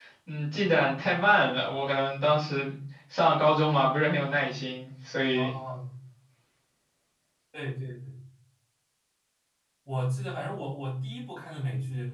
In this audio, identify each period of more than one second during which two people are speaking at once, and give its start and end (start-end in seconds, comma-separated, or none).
none